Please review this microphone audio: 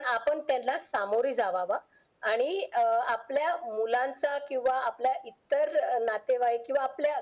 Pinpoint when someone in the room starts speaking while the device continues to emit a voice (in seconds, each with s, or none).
none